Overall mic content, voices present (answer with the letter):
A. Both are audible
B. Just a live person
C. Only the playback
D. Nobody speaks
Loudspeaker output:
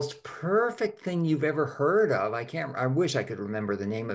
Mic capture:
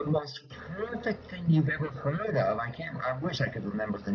C